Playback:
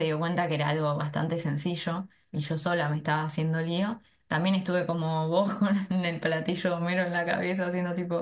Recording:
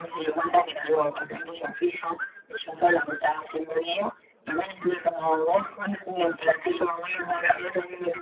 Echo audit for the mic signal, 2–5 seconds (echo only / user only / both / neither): echo only